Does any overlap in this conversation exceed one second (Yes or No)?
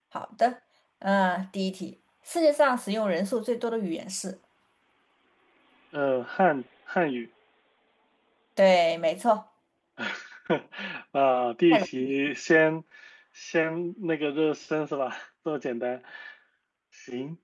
No